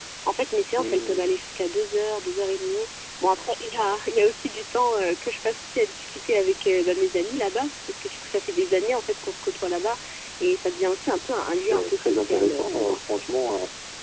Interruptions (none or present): present